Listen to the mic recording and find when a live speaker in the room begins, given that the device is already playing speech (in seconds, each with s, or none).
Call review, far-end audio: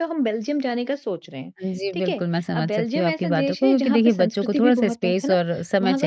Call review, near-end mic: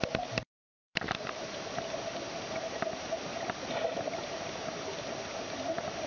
none